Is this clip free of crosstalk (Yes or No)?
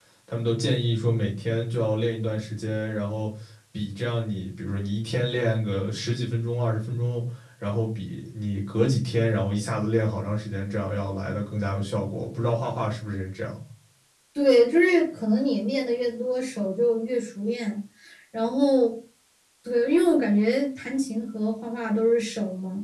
Yes